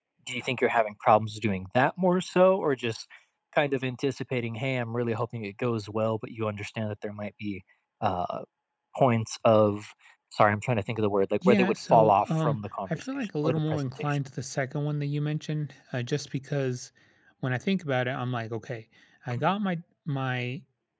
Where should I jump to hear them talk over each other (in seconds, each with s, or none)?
11.4 s